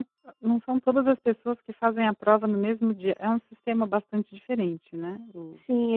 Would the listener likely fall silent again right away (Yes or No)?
No